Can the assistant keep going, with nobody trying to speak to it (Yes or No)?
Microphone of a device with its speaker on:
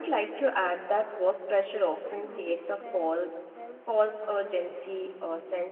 No